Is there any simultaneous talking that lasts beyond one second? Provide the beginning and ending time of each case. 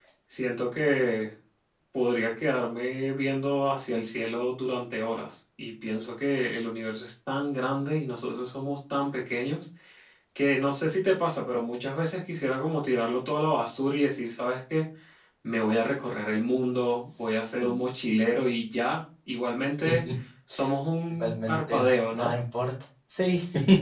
21.1-22.3

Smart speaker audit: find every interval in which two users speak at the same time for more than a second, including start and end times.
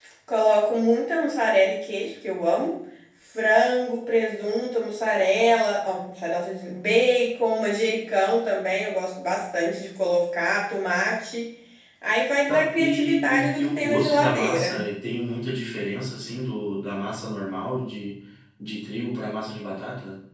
12.5-14.8

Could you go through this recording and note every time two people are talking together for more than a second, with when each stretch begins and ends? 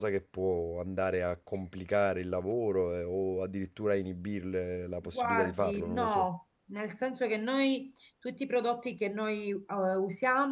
5.0-6.3

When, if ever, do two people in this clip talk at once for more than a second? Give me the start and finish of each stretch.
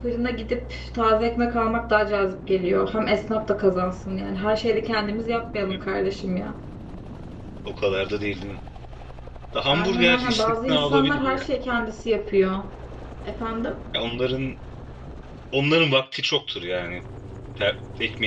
9.7-11.4

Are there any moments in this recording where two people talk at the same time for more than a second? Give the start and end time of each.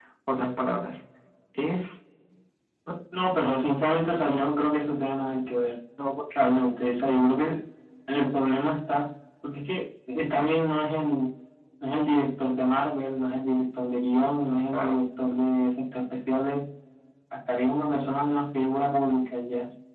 none

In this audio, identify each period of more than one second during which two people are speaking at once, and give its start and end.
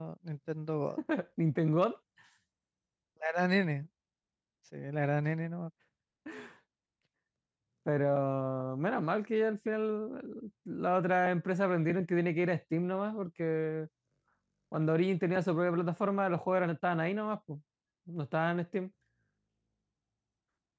none

